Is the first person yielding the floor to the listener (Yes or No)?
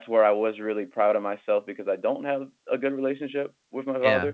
No